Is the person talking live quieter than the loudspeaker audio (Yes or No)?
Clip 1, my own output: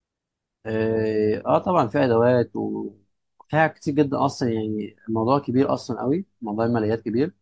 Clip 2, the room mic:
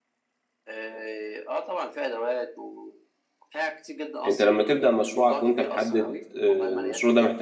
No